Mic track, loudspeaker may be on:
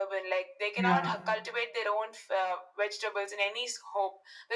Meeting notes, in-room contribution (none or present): present